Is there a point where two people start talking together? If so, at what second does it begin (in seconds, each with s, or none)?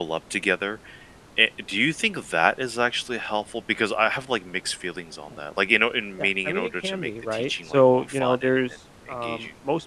6.2 s